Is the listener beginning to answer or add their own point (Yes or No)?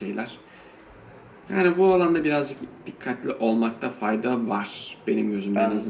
Yes